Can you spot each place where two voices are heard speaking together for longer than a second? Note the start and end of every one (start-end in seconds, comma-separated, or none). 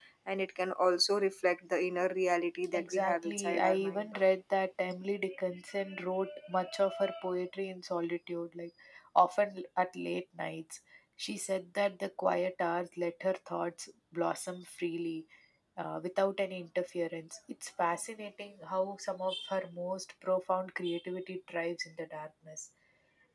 2.7-4.1